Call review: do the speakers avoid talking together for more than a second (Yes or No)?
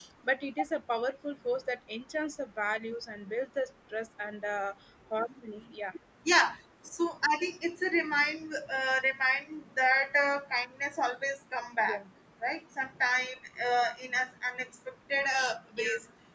Yes